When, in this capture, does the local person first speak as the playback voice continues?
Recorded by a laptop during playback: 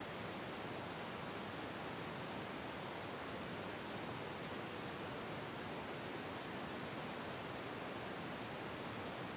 none

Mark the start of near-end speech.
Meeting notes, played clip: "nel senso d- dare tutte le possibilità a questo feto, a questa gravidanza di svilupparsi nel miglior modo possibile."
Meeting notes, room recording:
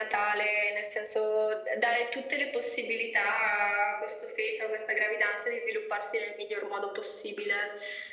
none

